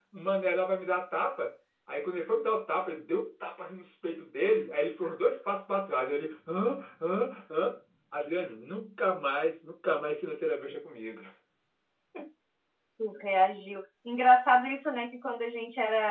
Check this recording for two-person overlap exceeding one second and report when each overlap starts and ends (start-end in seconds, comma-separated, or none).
none